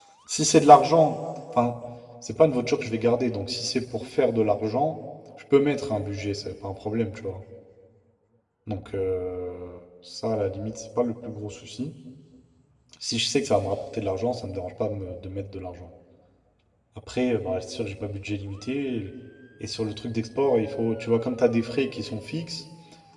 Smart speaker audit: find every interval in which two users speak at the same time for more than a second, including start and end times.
none

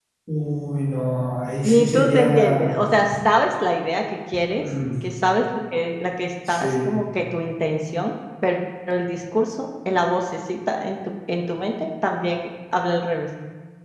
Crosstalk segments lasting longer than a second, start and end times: 1.6-2.9

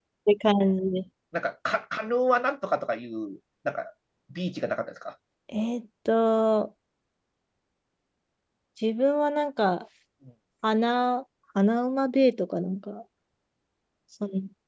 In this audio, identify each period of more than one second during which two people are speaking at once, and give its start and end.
none

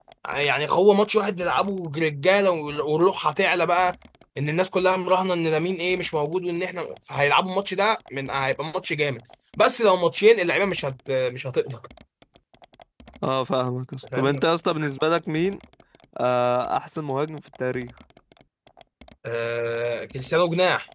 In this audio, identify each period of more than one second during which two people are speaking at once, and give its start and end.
none

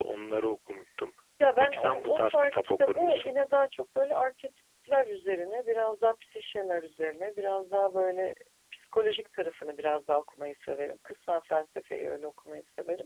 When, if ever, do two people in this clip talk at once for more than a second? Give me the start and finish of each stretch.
1.6-3.4

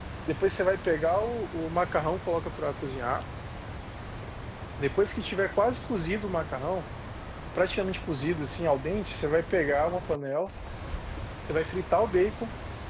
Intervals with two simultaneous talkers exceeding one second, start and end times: none

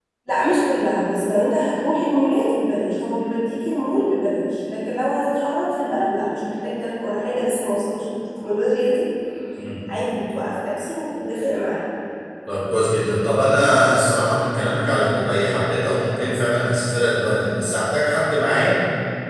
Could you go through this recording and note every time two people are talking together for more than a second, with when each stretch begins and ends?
none

